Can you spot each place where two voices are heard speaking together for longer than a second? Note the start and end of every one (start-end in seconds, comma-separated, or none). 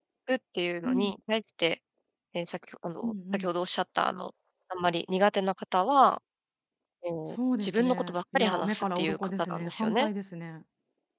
7.3-10.1